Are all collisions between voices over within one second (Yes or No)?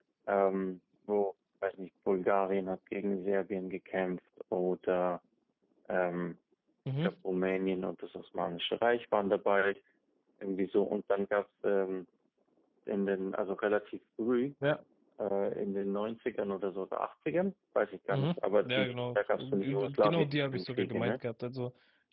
No